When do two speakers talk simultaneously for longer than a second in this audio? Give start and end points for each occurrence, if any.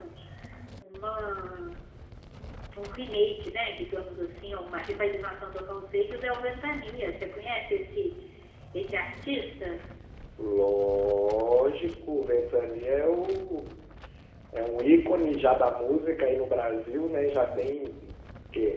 none

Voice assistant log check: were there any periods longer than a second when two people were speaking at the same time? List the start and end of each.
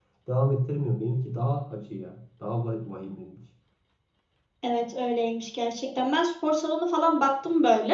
none

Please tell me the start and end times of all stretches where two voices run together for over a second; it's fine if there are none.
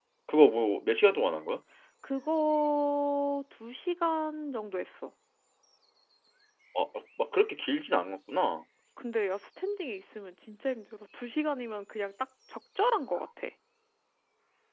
none

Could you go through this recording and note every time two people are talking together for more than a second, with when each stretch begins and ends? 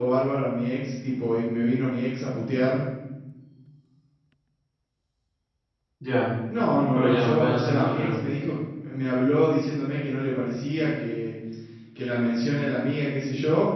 7.0-8.2

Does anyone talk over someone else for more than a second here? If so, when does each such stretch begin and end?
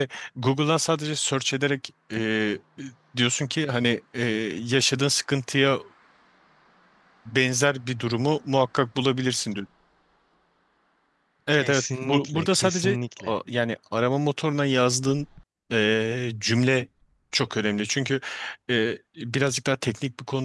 11.5-13.3

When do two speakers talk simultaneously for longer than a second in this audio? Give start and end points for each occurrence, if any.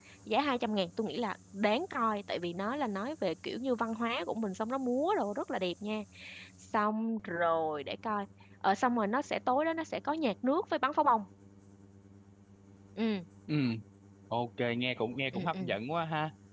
none

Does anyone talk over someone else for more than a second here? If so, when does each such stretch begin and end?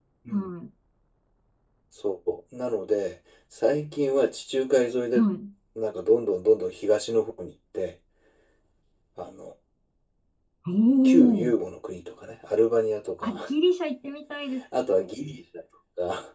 none

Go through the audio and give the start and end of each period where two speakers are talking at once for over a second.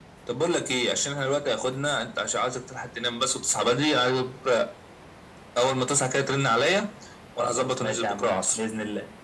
7.4-8.6

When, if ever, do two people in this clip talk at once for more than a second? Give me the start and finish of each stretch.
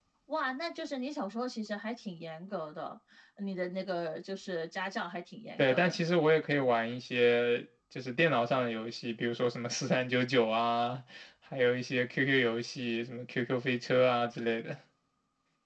none

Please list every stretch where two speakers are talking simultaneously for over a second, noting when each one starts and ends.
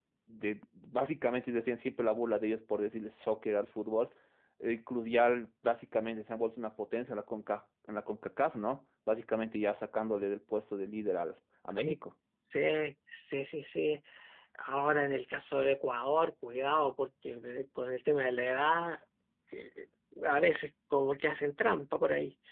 none

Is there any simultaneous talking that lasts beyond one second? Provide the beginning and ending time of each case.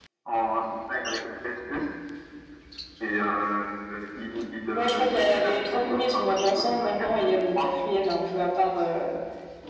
4.7-7.7

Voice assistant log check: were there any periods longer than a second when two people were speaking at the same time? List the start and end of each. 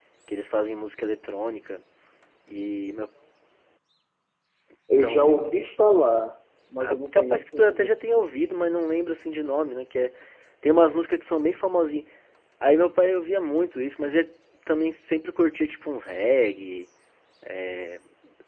6.8-8.2

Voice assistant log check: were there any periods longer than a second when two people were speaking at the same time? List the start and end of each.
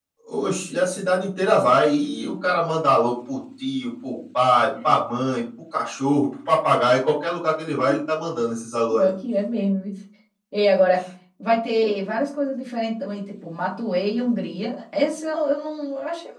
none

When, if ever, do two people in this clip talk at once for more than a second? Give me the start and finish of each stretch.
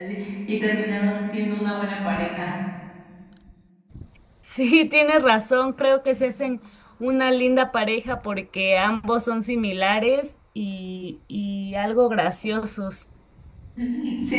none

